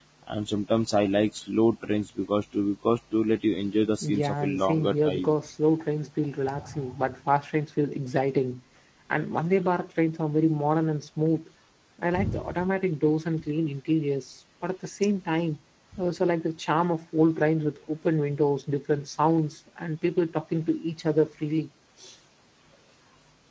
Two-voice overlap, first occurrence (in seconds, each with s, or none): 4.0 s